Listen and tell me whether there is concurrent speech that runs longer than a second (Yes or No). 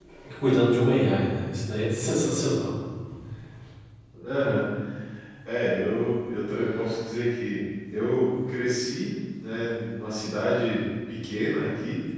No